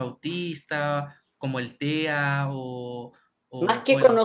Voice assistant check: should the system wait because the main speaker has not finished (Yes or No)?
No